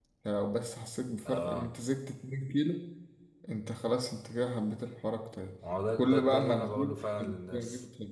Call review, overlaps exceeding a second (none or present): present